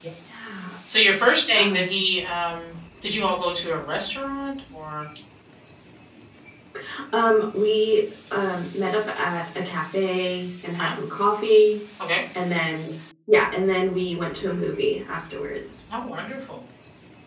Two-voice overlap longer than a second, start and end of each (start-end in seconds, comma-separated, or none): none